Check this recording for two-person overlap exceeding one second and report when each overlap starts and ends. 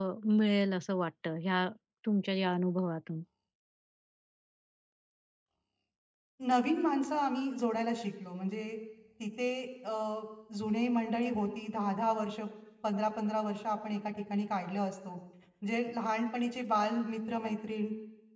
none

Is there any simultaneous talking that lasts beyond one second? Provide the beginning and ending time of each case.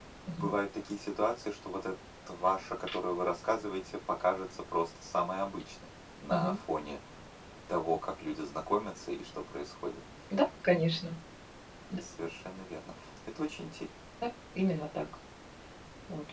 none

